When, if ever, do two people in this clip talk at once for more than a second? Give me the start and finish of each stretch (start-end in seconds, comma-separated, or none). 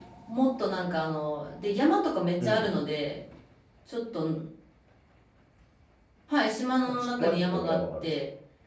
6.8-8.1